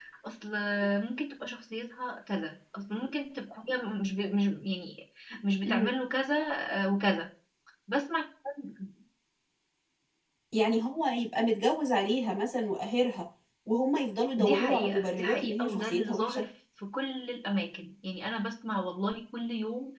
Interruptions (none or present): present